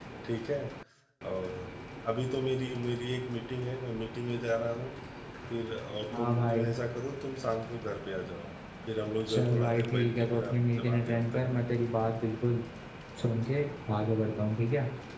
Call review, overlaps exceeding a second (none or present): present